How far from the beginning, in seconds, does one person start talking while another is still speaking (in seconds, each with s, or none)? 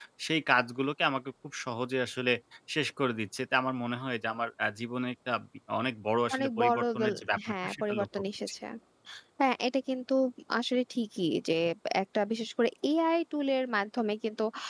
6.3 s